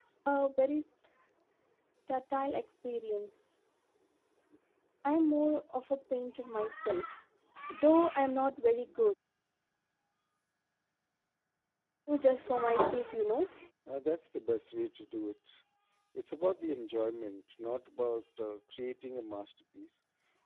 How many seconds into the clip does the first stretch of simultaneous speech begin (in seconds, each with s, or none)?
none